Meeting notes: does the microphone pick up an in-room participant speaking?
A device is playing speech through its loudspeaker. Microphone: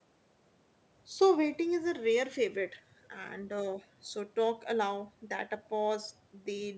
Yes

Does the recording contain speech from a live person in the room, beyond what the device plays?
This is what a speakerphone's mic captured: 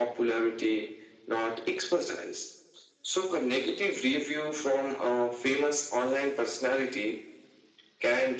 No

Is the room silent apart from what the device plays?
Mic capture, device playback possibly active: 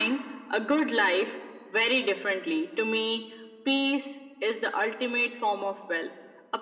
Yes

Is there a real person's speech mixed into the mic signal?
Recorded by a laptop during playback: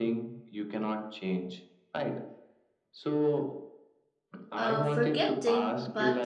Yes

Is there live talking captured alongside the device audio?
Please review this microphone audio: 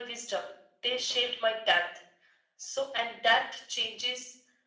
No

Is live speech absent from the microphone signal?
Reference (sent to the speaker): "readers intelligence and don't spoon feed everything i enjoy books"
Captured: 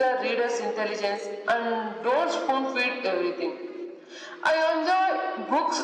Yes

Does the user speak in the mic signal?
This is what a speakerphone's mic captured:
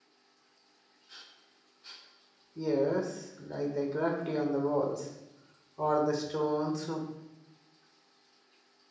Yes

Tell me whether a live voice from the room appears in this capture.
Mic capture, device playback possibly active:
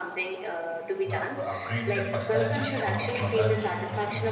Yes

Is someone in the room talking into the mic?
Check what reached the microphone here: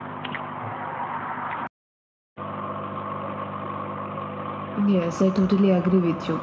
Yes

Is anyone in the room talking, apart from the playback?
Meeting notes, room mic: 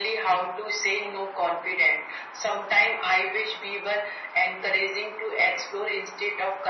No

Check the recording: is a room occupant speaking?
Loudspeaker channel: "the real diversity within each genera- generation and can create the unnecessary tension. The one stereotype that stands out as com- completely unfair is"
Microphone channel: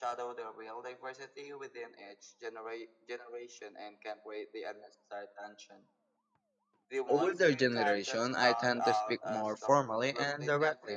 Yes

